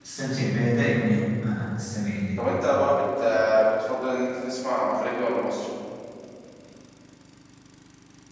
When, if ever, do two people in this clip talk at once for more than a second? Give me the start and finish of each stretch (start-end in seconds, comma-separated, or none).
none